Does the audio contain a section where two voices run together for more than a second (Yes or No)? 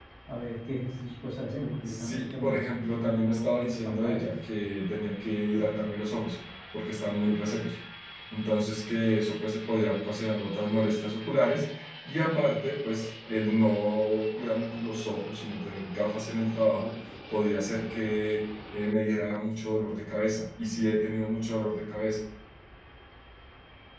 Yes